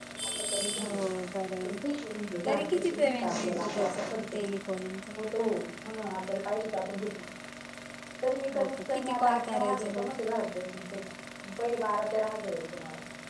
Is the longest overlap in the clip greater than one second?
Yes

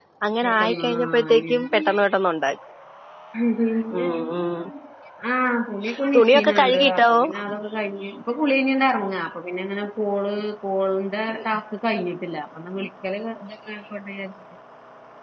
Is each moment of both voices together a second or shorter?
No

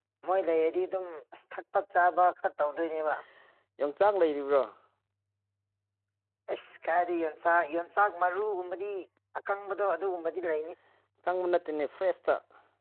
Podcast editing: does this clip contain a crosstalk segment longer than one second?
No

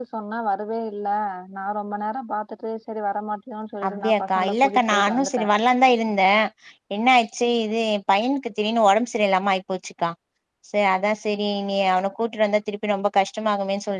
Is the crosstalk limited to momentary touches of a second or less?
No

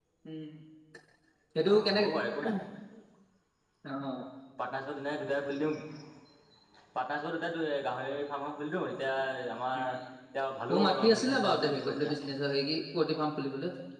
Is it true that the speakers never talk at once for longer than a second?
No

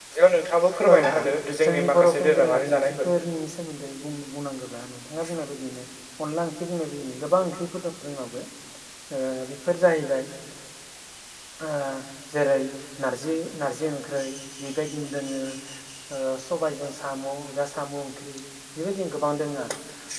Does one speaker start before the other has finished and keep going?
Yes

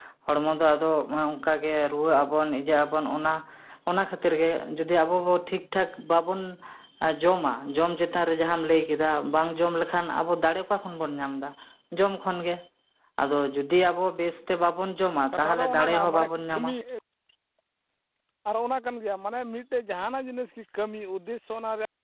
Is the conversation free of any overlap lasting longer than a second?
No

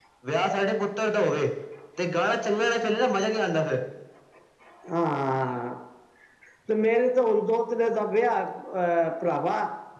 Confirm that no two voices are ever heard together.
Yes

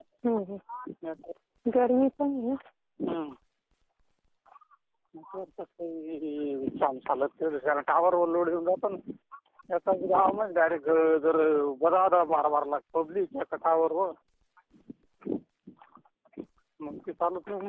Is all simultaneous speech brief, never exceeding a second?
Yes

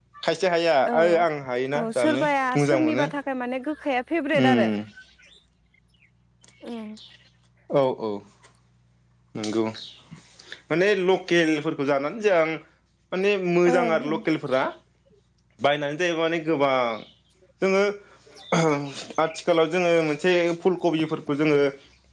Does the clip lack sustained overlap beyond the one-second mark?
No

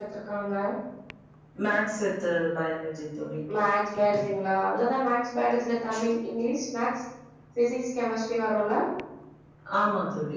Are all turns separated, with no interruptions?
Yes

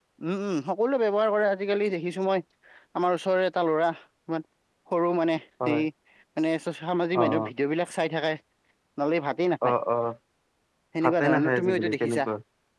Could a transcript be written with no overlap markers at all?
No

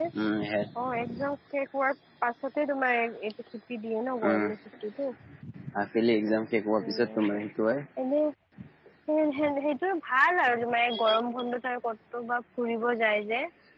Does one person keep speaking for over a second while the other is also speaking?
No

